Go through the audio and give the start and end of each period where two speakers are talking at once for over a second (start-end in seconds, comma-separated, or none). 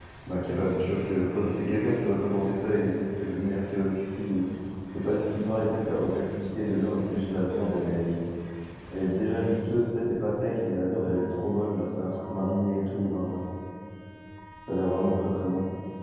none